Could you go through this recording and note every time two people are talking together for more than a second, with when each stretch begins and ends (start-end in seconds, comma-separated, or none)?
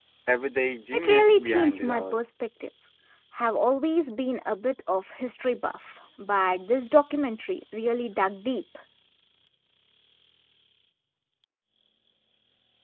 0.9-2.2